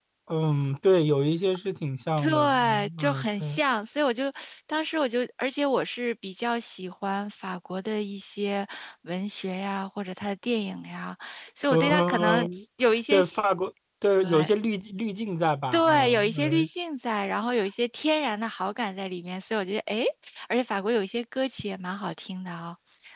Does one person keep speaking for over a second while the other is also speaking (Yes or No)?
Yes